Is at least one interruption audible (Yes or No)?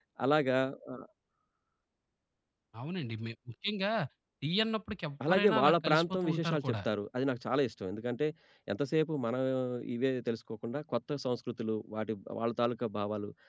Yes